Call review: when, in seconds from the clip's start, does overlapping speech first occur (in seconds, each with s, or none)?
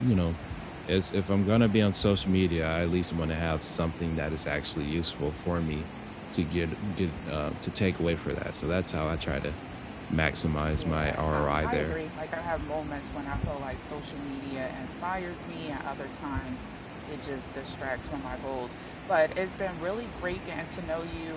10.7 s